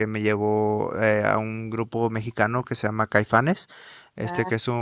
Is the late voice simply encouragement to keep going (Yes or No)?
Yes